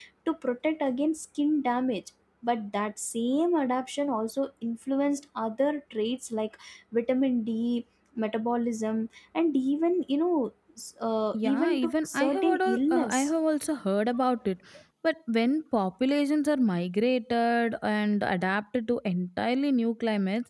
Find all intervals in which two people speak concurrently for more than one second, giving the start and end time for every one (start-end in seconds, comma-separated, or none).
11.3-13.2